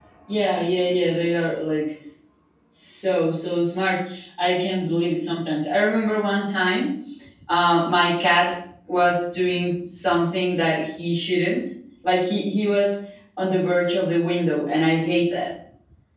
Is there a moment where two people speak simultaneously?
No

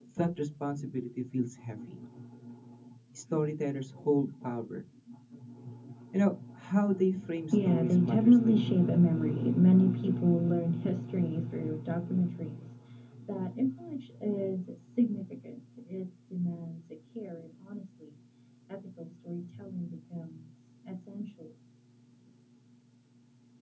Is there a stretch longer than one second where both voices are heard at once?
Yes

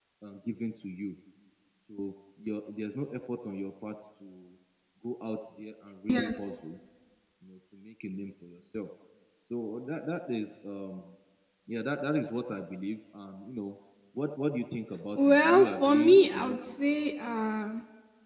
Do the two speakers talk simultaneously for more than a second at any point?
Yes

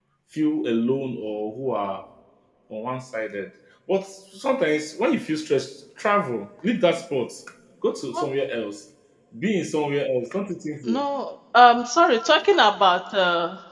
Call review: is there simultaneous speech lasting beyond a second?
No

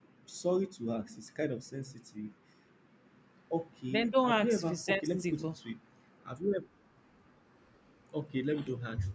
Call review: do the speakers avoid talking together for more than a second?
No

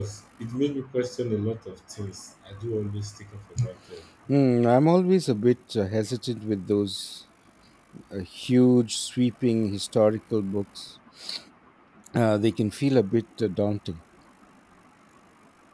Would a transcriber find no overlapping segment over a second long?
Yes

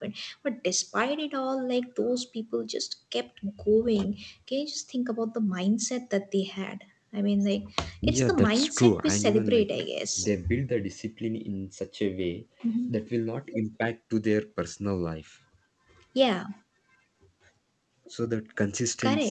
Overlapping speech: Yes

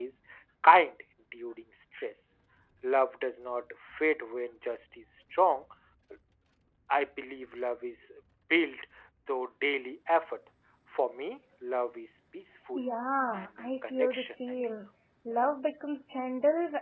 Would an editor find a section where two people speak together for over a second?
Yes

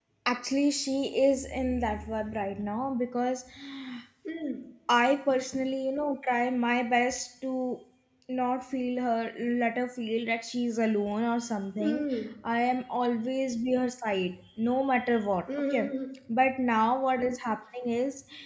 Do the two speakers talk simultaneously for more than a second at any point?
No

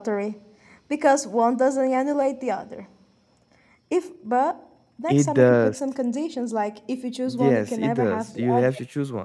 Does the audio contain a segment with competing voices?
Yes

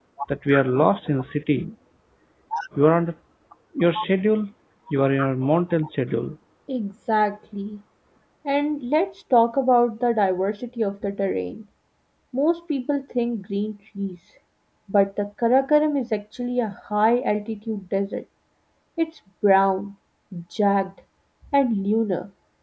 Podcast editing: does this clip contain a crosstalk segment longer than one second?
No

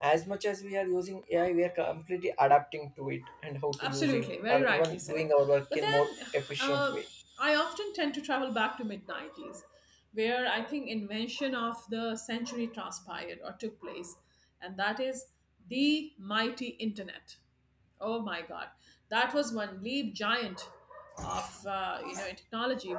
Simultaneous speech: Yes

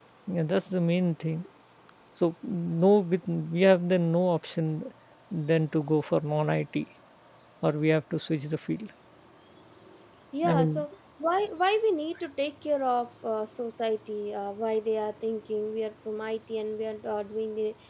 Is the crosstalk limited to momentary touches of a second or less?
Yes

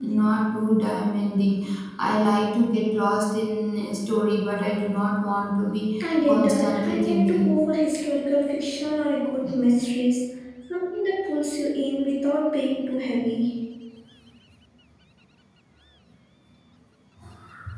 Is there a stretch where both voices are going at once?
Yes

